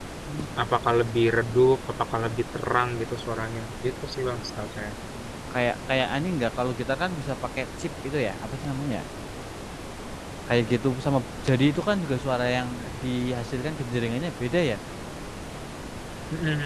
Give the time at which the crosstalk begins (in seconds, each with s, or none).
none